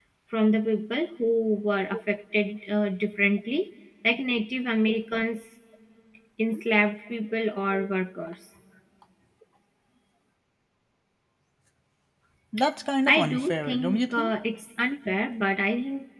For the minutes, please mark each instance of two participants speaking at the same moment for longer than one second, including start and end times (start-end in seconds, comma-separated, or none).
13.1-14.3